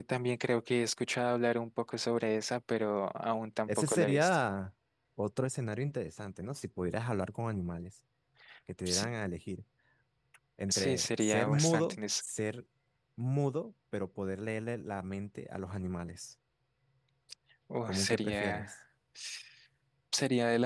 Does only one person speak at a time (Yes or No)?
No